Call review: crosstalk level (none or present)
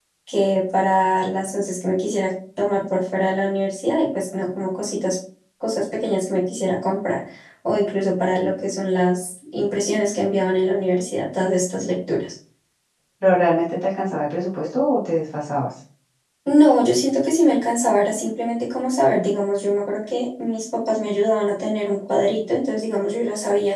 none